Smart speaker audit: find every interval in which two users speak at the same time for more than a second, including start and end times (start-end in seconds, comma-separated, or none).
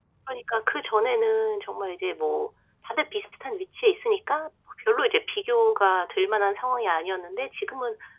none